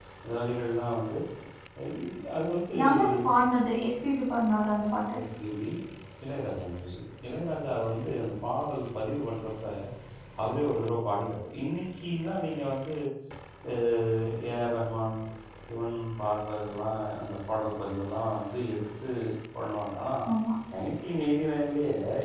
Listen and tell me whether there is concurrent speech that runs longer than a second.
No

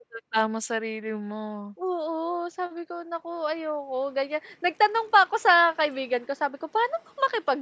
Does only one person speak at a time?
Yes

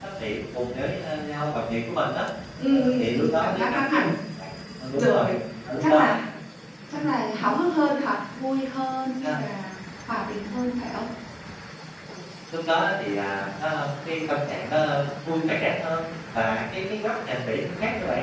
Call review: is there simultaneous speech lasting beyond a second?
Yes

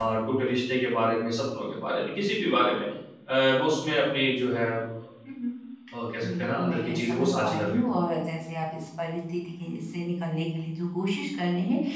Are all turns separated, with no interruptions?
No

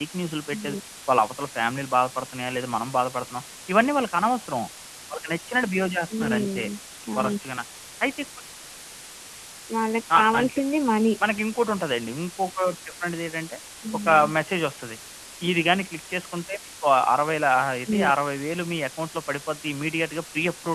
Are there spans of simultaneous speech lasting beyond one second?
No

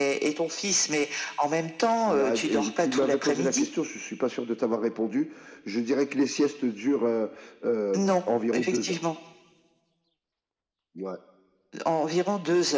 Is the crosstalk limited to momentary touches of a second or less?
No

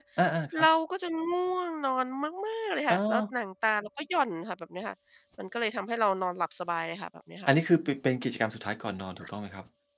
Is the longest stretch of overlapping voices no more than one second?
Yes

